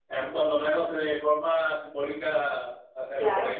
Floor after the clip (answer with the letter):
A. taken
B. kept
B